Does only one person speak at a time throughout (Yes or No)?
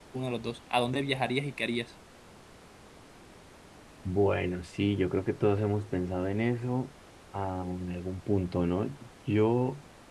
Yes